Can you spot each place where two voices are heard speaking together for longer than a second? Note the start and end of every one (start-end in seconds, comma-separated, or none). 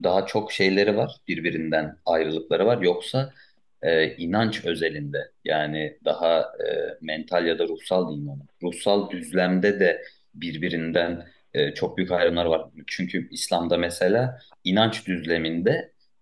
none